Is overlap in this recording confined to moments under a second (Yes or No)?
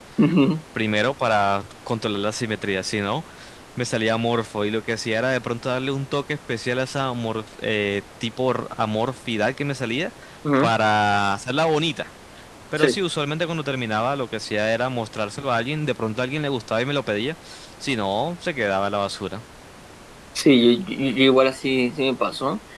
Yes